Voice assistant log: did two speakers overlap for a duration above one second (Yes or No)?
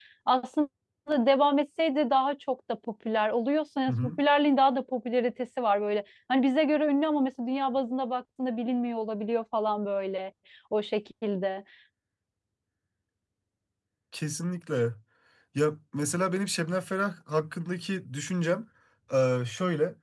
No